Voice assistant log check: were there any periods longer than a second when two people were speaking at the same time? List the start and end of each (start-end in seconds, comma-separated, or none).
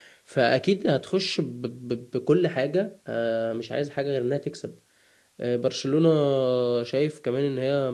none